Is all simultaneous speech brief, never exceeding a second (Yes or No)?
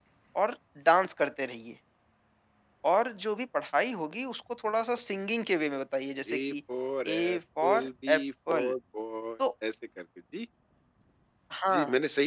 No